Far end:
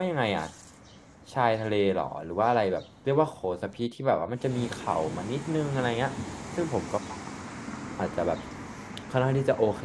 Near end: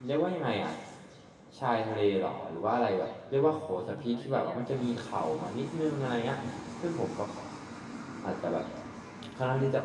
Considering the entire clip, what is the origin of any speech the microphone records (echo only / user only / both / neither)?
both